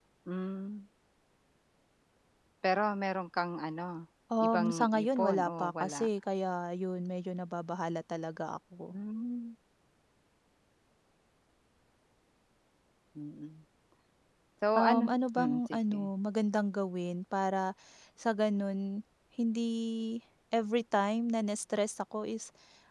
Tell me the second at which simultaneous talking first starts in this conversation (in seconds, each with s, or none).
4.4 s